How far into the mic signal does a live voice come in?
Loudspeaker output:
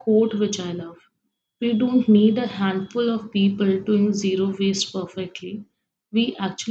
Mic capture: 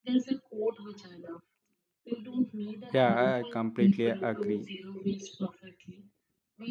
2.9 s

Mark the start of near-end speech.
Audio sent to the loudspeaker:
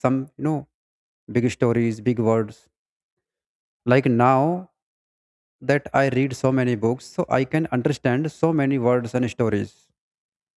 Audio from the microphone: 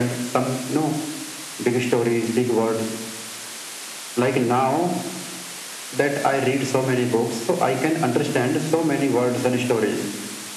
none

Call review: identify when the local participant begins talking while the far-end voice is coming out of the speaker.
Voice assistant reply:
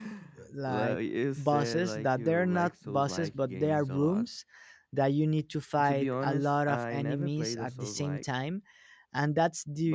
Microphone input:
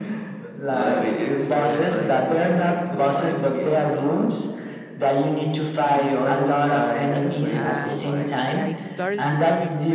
7.5 s

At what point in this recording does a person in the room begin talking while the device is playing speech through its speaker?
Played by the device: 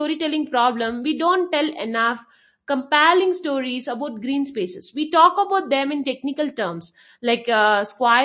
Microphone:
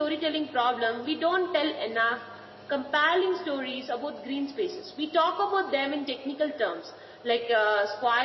none

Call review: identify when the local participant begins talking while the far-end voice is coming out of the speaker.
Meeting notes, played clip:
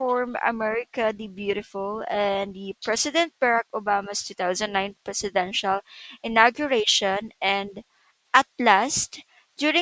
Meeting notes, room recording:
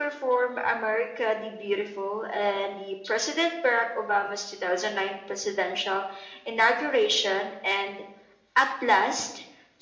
none

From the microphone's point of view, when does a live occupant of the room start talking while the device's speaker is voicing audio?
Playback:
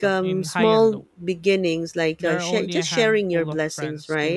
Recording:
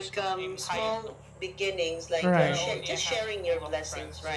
2.2 s

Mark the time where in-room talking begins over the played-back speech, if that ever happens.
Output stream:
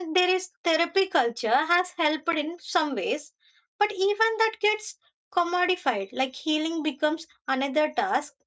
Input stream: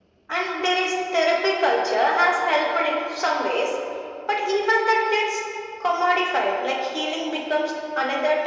none

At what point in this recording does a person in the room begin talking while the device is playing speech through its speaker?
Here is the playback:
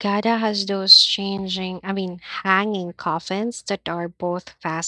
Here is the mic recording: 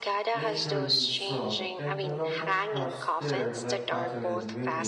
0.3 s

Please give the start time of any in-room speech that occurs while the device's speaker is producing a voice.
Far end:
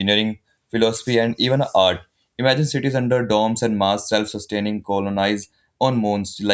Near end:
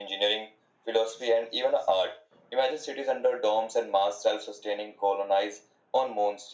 none

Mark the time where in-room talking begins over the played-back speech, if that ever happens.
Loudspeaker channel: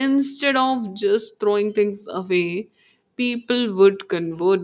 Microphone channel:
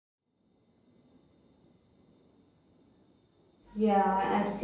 3.7 s

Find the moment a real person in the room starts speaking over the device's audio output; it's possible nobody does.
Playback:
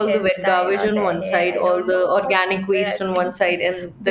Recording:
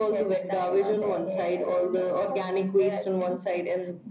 none

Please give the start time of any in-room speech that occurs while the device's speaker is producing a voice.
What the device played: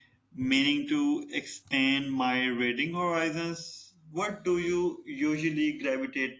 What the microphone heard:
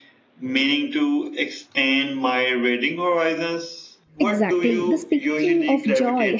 4.2 s

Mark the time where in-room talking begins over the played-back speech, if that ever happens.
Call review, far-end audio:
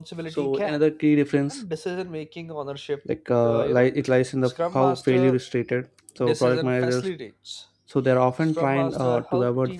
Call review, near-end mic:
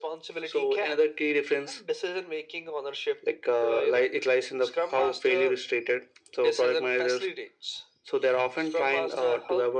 none

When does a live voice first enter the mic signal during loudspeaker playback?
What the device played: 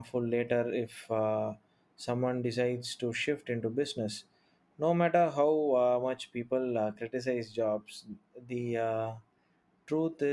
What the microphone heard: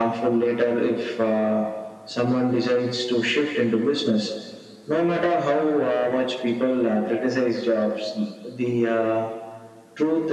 none

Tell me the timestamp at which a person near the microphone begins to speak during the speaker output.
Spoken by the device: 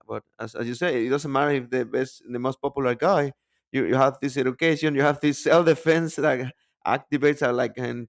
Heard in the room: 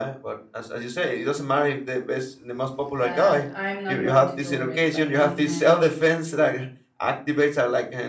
3.0 s

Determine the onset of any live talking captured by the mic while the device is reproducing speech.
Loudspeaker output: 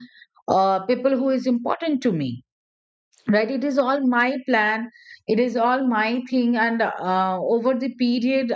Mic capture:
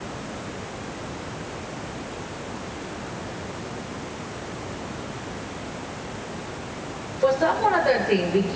7.2 s

